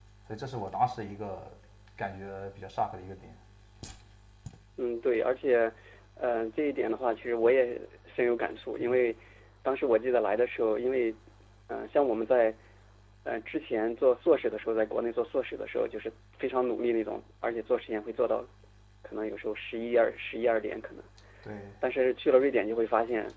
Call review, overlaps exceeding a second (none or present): none